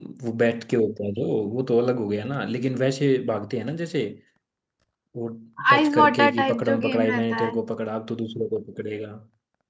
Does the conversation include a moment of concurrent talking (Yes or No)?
Yes